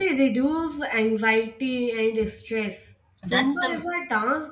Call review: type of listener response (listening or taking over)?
listening